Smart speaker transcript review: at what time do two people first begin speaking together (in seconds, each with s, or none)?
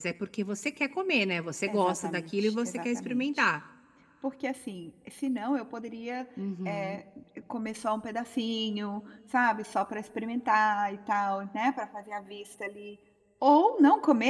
1.7 s